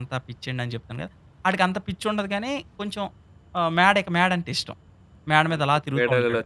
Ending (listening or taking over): taking over